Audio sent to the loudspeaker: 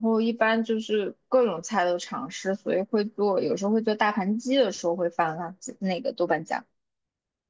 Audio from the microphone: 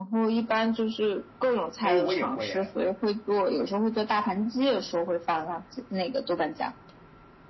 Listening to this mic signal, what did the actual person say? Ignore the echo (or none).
哎，我也会哎，